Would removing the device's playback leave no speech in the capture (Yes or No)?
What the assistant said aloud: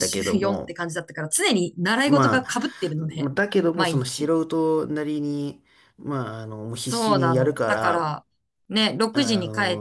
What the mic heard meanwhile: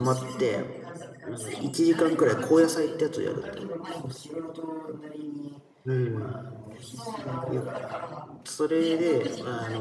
No